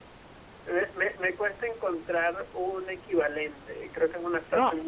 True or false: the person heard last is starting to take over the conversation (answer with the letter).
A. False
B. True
B